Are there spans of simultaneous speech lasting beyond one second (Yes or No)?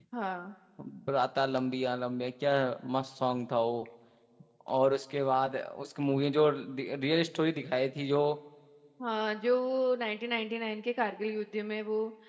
No